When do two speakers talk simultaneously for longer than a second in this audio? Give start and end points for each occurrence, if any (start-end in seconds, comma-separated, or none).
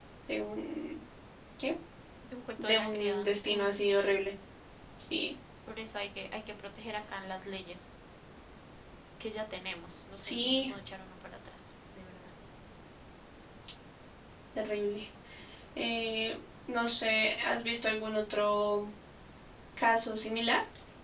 2.6-4.2